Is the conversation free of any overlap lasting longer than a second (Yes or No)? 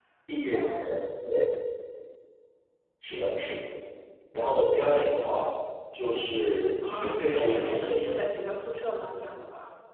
No